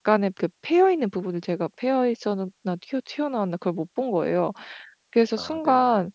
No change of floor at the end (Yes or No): Yes